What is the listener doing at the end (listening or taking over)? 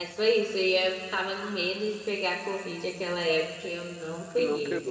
listening